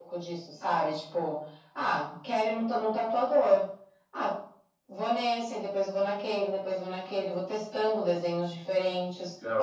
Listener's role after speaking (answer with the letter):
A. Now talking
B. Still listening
B